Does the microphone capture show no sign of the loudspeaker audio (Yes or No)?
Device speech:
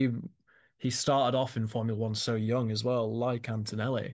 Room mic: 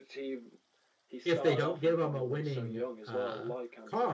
No